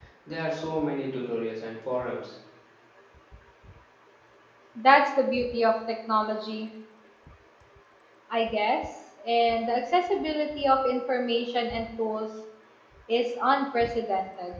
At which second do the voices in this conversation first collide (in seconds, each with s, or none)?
none